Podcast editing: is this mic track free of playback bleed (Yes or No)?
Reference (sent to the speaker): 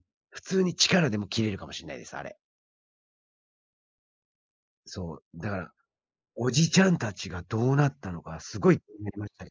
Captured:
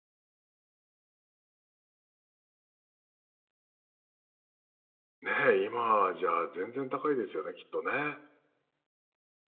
Yes